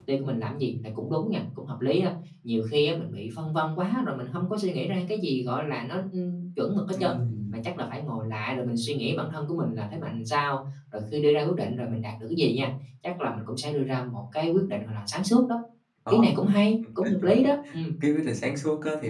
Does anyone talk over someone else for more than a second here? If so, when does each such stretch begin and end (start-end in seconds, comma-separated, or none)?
none